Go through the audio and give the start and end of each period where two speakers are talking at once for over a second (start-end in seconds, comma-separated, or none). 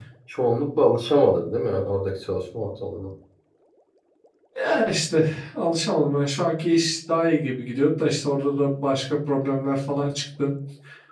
none